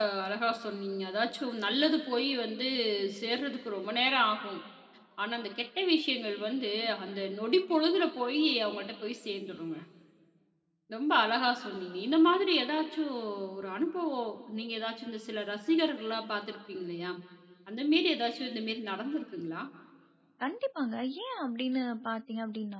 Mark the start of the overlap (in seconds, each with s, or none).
none